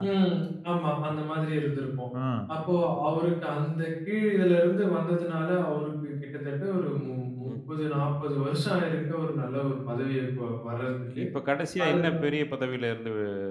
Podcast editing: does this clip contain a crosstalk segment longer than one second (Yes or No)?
No